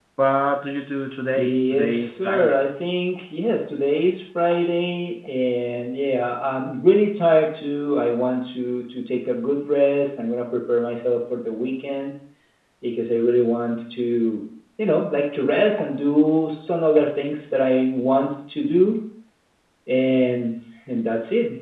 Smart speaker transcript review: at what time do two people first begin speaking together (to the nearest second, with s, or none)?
1 s